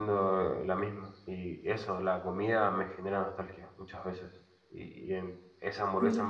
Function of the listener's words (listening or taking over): listening